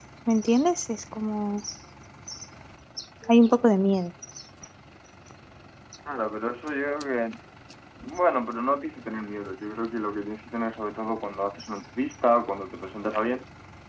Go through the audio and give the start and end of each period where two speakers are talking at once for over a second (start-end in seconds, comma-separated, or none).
none